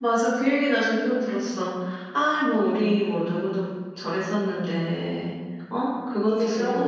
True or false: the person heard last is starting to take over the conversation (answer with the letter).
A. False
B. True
B